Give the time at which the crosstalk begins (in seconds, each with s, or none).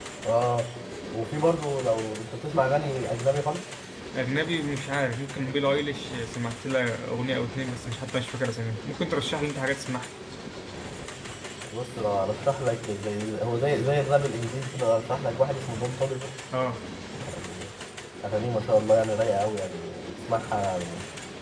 none